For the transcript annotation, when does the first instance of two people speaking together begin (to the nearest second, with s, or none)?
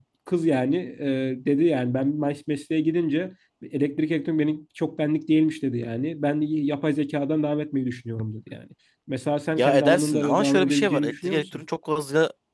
10 s